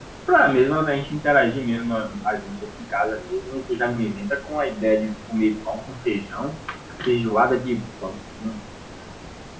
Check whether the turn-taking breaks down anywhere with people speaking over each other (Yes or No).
No